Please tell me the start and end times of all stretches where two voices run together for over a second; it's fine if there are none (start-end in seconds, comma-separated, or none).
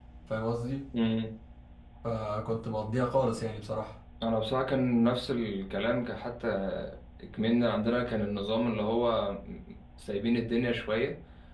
none